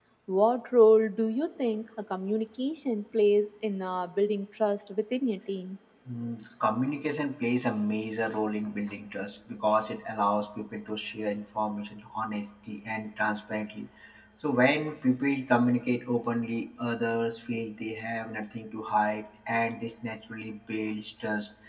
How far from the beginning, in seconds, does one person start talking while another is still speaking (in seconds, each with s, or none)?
none